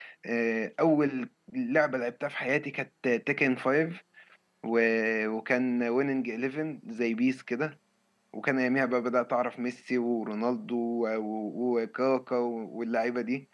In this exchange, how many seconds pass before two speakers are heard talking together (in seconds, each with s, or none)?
none